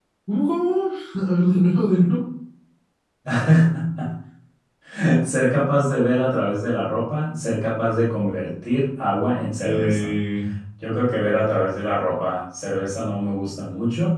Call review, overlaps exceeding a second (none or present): none